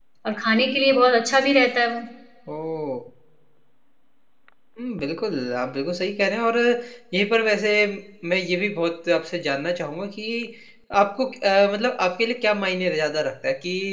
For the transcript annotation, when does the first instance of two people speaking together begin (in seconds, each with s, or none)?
none